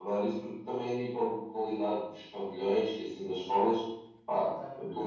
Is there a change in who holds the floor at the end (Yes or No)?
No